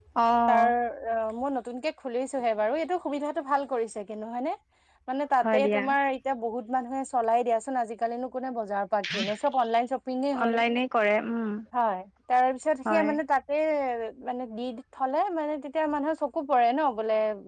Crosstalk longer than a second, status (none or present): none